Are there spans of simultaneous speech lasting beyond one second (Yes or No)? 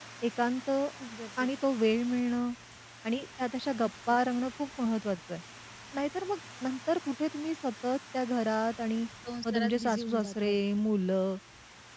Yes